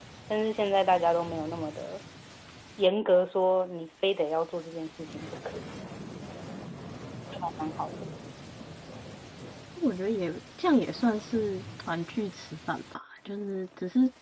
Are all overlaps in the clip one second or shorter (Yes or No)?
Yes